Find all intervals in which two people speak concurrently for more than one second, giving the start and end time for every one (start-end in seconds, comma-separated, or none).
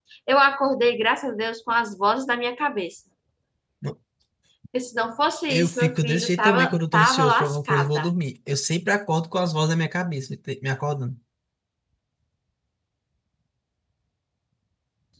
5.5-8.1